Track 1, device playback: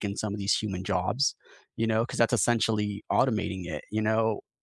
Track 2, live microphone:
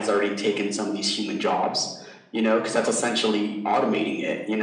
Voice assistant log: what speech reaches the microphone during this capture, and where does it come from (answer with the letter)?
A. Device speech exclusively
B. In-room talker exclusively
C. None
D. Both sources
A